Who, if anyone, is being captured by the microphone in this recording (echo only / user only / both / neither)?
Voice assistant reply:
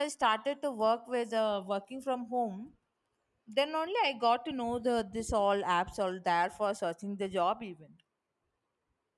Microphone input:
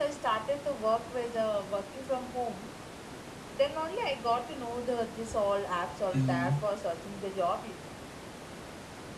both